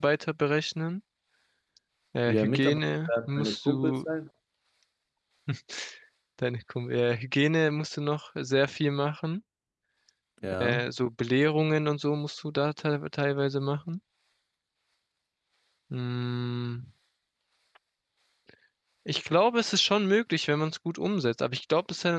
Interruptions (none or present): present